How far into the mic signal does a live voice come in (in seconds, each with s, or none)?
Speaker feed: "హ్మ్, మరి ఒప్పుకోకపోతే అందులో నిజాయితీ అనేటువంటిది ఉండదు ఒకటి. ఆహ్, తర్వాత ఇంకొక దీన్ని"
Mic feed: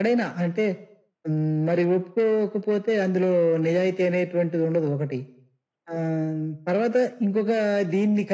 none